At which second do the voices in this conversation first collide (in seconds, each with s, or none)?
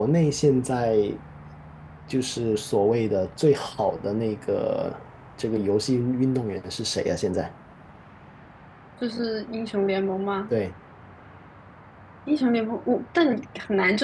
none